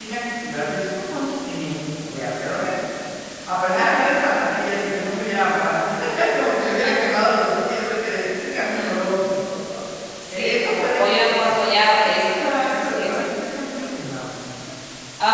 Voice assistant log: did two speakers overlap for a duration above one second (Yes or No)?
Yes